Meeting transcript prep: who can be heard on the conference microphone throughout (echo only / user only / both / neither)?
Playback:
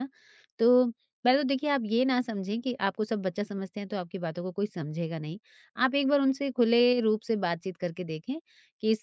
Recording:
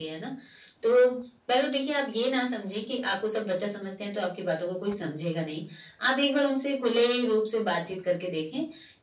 echo only